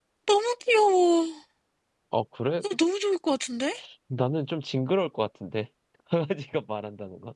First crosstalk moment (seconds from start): none

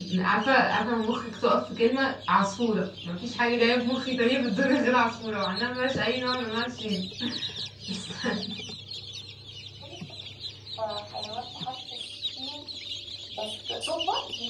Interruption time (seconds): none

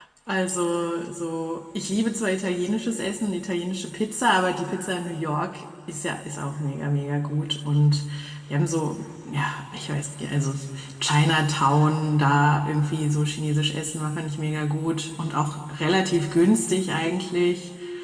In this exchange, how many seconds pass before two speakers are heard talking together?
none

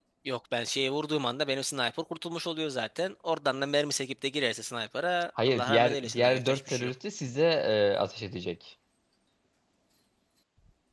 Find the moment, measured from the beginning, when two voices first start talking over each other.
5.4 s

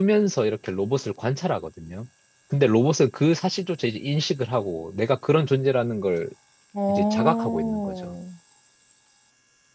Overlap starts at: 6.9 s

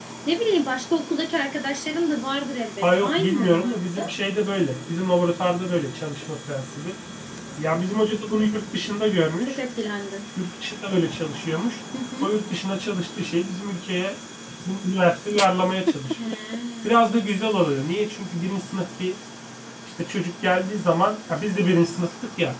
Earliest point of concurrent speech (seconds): 2.8 s

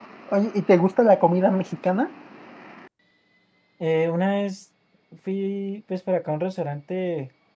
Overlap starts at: none

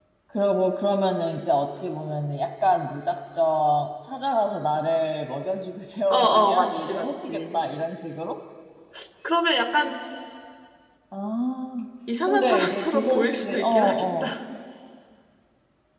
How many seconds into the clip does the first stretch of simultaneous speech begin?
6.1 s

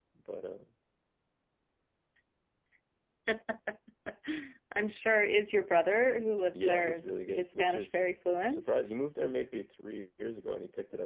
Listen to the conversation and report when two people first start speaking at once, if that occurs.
6.5 s

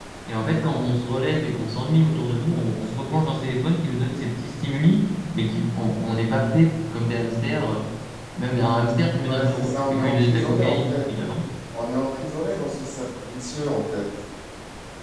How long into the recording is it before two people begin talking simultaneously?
9.2 s

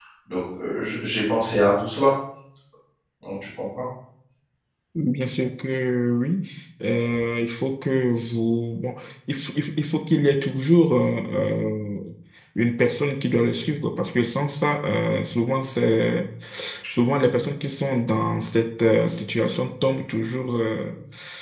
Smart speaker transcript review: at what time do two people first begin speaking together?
none

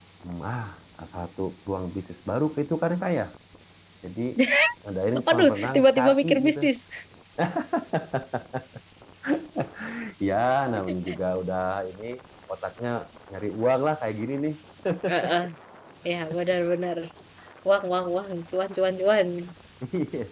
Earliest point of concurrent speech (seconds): 5.2 s

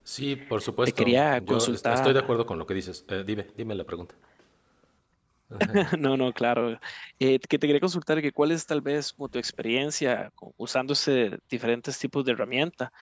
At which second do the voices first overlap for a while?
1.0 s

